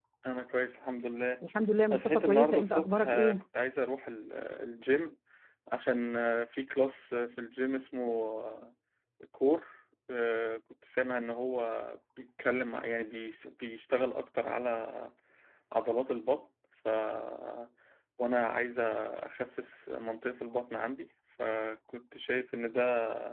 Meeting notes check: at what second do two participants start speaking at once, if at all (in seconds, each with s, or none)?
1.9 s